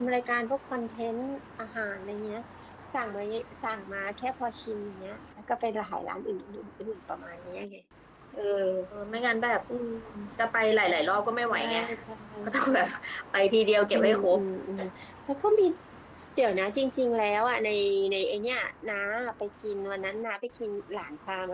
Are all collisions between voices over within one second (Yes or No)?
Yes